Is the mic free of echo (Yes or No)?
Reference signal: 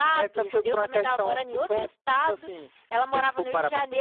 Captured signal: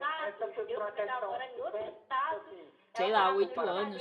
No